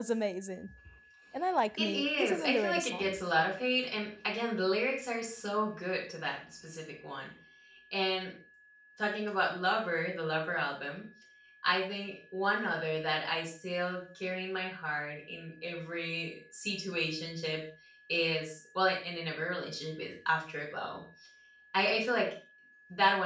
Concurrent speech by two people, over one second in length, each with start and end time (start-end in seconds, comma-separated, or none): 1.8-3.2